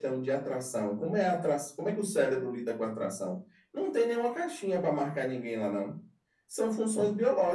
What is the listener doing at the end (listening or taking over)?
listening